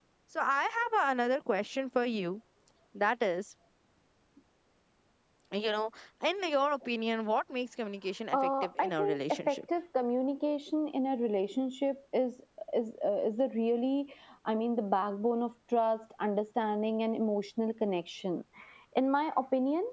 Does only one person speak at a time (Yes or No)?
No